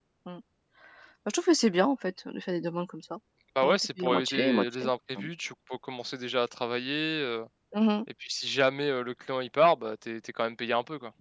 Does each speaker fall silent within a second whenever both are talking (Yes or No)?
No